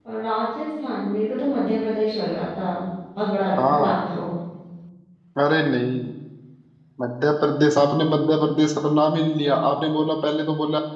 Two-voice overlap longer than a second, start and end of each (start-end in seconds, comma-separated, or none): none